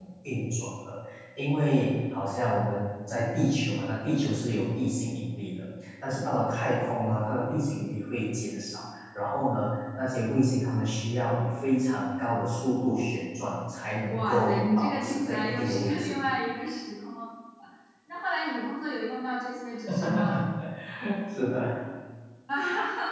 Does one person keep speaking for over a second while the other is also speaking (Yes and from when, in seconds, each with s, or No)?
Yes, from 14.1 s